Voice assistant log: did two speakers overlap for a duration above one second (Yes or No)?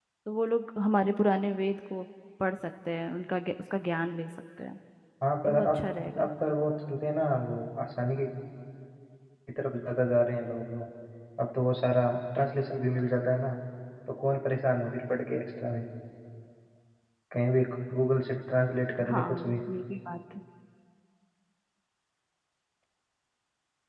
No